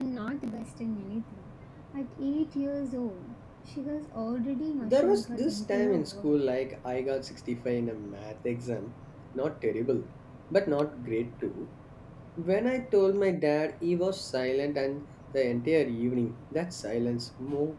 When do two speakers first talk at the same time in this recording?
4.8 s

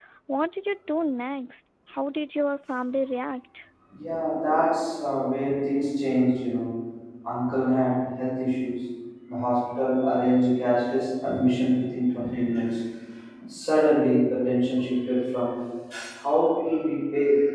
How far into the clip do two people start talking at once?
none

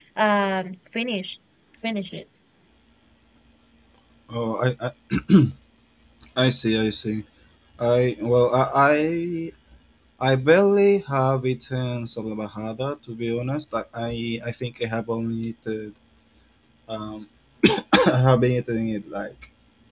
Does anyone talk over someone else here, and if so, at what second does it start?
none

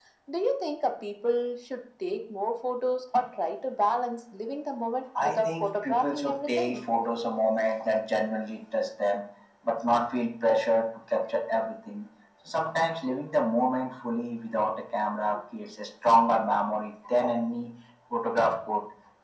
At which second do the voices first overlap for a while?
5.2 s

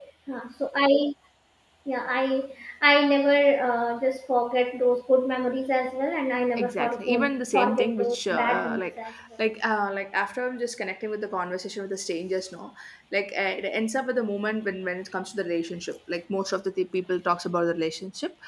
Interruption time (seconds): 6.6 s

